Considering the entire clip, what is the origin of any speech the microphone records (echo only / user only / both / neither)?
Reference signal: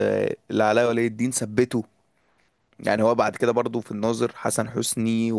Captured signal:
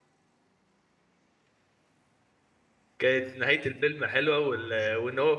user only